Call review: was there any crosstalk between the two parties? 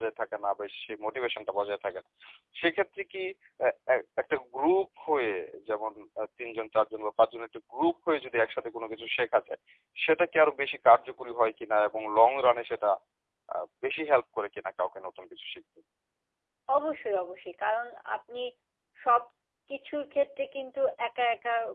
No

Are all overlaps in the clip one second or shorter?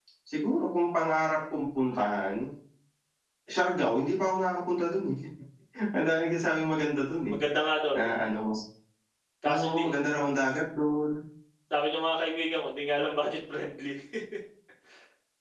Yes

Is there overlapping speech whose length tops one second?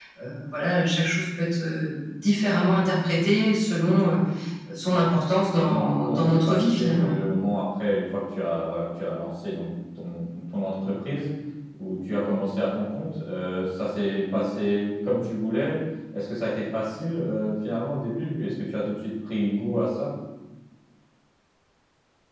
Yes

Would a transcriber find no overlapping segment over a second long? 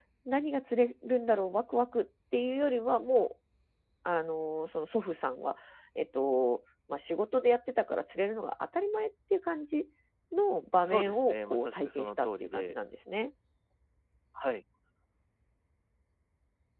No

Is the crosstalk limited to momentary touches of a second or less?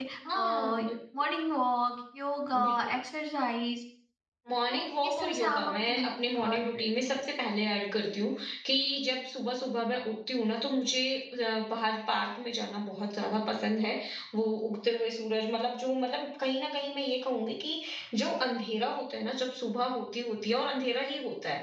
No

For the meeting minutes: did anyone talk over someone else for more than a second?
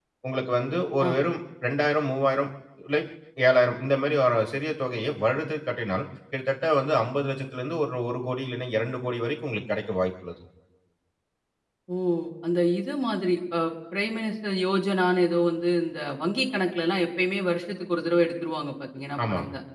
No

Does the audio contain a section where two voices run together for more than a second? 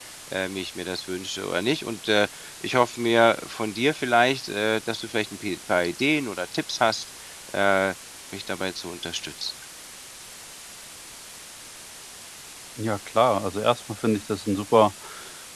No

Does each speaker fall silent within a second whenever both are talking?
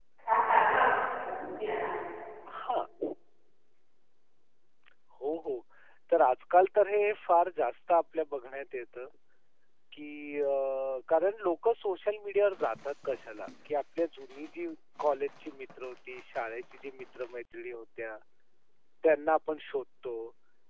Yes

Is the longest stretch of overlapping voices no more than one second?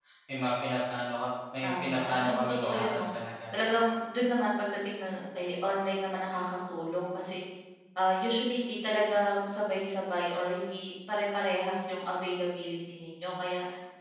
No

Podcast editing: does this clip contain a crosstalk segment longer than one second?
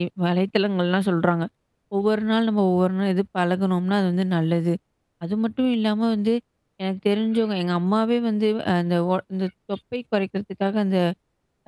No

